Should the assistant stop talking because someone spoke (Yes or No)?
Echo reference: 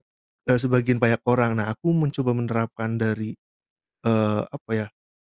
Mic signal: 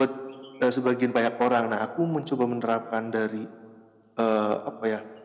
No